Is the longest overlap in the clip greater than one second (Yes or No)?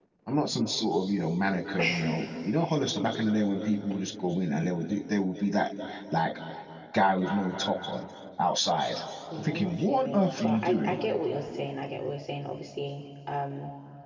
Yes